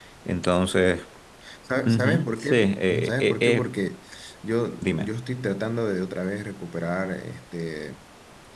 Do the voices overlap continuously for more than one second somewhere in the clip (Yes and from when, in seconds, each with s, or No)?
Yes, from 1.9 s